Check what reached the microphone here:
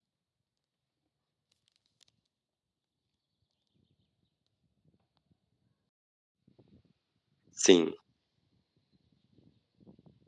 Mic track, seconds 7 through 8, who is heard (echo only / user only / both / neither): user only